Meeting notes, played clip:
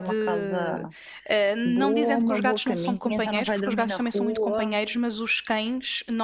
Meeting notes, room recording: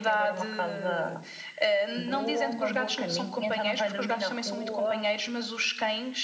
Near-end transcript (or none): none